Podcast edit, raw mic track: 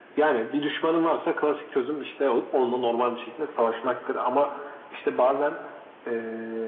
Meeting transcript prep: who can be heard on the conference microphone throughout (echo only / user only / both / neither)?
echo only